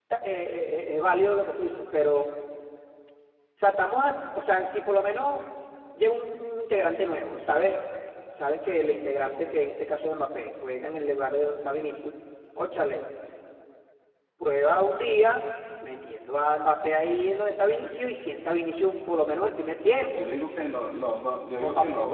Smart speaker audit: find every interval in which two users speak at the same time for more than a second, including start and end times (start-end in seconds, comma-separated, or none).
none